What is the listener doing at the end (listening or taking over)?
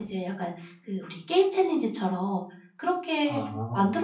listening